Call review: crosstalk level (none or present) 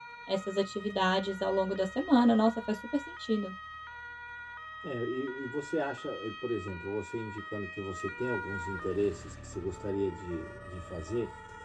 none